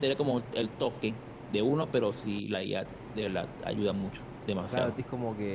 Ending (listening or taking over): taking over